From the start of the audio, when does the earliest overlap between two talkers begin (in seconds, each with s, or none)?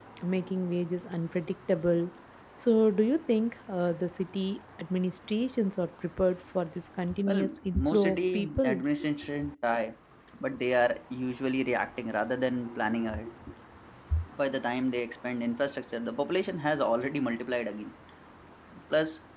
7.3 s